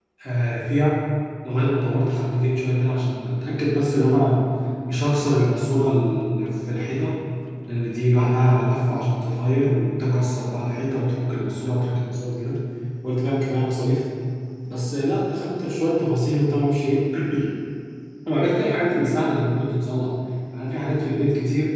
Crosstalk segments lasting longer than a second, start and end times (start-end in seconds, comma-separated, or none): none